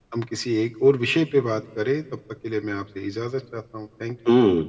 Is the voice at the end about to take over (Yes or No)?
Yes